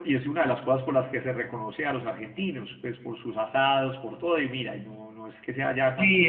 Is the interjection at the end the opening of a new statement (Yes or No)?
Yes